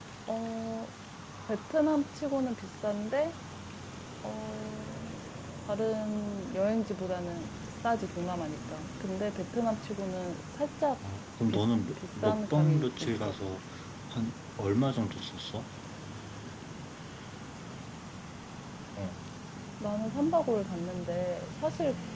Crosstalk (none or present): present